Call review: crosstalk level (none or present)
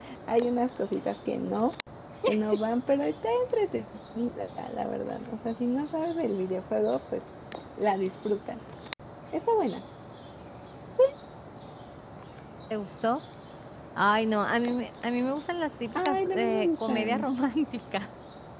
present